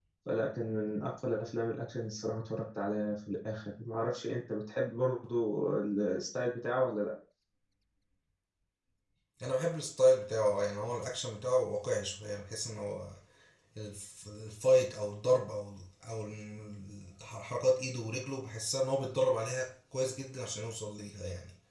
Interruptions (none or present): none